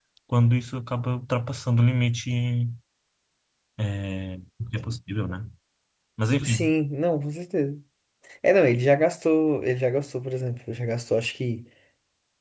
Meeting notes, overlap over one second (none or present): none